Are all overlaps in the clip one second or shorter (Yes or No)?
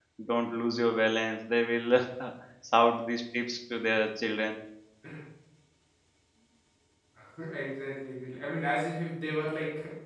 Yes